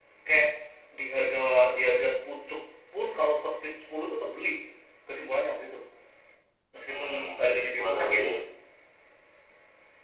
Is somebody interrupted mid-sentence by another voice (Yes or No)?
Yes